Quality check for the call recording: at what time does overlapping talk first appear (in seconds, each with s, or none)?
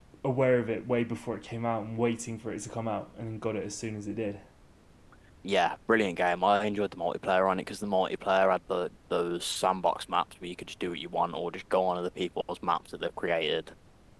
none